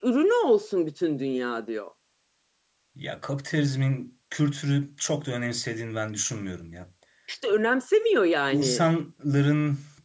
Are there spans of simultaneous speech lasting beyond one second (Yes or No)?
No